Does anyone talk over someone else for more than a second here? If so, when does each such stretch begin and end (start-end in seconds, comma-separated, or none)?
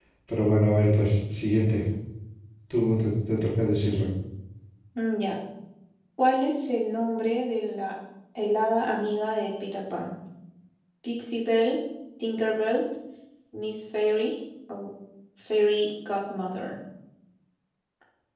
none